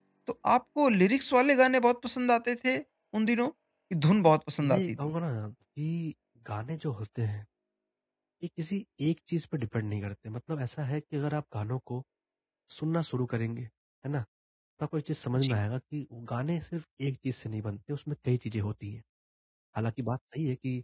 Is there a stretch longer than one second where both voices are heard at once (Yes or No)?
No